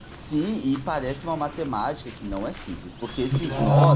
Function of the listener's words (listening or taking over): listening